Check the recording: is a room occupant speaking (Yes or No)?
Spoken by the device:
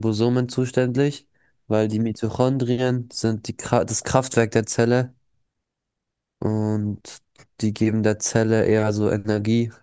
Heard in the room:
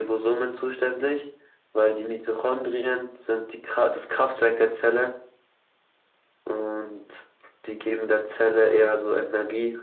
No